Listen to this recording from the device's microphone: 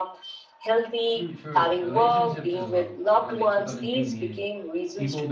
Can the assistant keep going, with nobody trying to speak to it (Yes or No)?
No